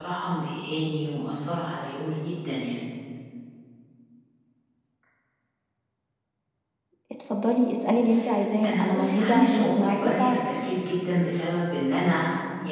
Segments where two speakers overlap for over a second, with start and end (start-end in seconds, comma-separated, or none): 8.7-10.4